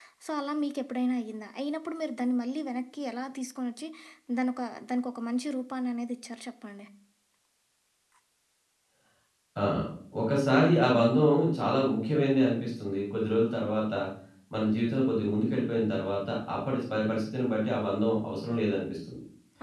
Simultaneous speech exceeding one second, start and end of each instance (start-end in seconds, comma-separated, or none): none